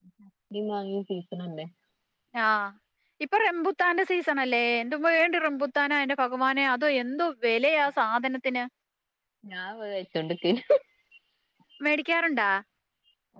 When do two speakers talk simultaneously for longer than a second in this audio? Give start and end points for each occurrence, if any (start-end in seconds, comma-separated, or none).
none